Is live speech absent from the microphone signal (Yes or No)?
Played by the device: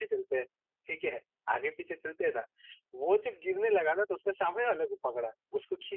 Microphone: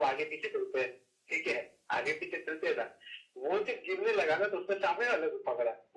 Yes